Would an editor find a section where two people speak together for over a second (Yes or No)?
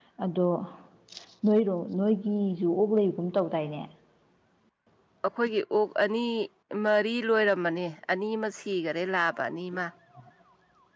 No